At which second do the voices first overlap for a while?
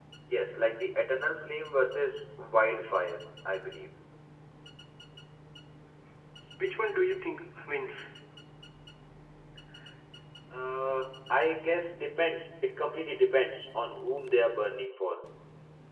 none

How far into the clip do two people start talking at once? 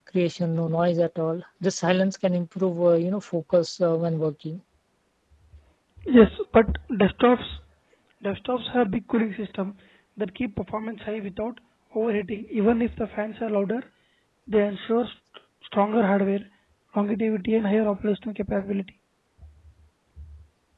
none

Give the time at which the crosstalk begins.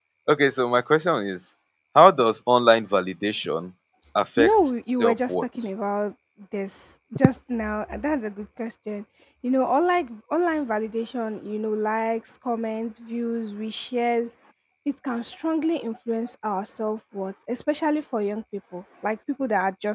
4.4 s

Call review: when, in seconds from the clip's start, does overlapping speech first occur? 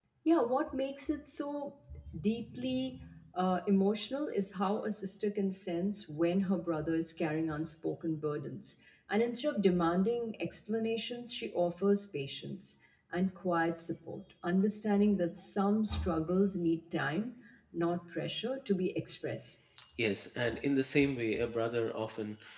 none

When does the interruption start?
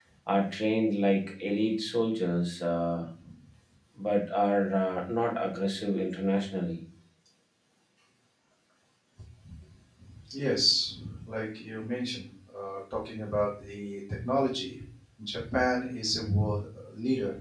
none

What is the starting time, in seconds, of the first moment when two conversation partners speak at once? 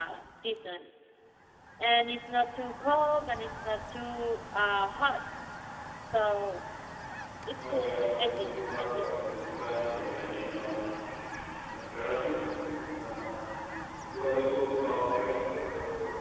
7.6 s

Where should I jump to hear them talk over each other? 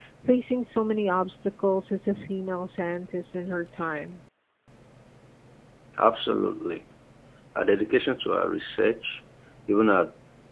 none

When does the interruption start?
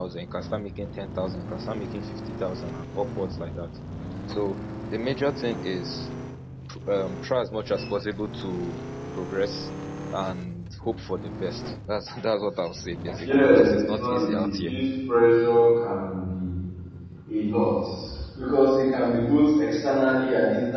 13.2 s

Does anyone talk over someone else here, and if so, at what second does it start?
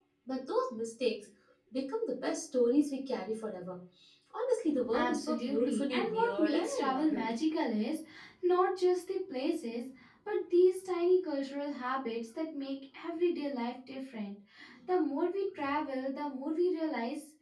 4.9 s

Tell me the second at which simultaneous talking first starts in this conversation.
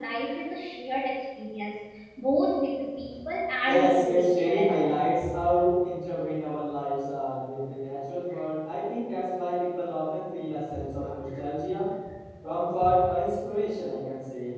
3.7 s

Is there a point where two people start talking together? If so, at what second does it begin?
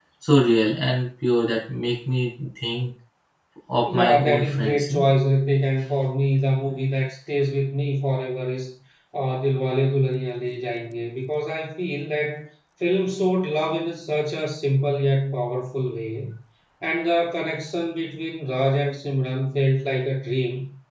3.9 s

